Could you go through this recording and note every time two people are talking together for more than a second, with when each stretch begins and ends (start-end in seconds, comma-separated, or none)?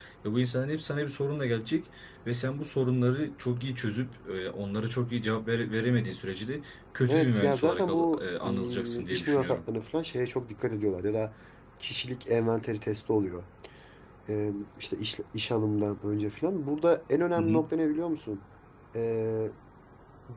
7.1-9.6